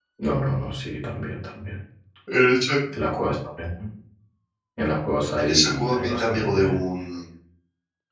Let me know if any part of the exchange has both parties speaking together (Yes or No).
Yes